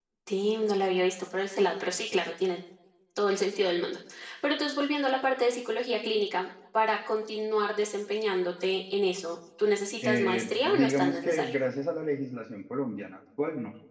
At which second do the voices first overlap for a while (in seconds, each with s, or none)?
10.0 s